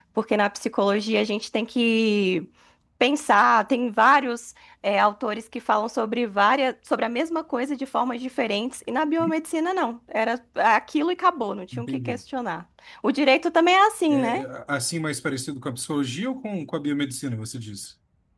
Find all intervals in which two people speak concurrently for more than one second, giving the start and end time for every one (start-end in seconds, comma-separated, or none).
none